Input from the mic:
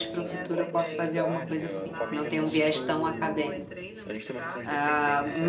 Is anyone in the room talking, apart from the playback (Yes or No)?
Yes